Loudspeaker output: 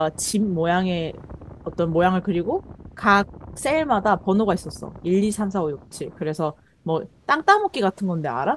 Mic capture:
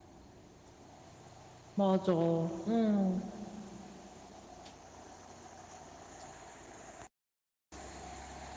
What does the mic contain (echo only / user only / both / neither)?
user only